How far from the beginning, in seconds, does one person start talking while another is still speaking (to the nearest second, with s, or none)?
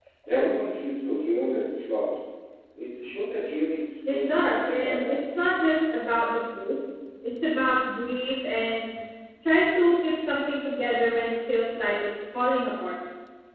4 s